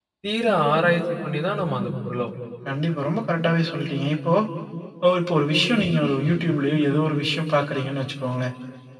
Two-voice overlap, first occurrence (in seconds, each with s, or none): none